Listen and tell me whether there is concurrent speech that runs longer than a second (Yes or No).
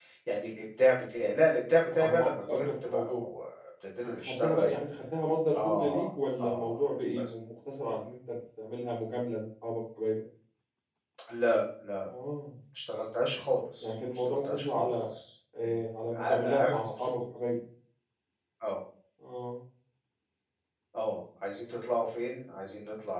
Yes